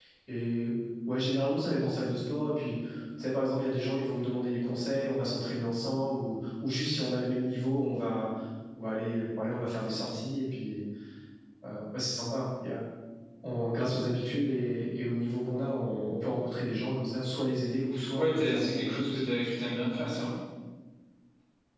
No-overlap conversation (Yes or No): No